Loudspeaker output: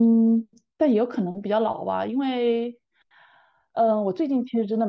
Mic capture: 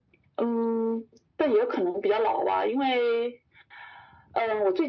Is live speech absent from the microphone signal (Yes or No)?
Yes